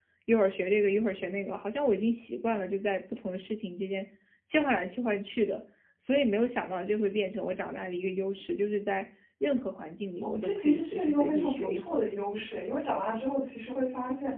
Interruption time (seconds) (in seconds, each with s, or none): 10.2 s